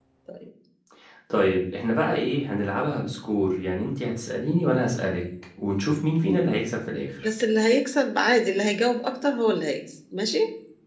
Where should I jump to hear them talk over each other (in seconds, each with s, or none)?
none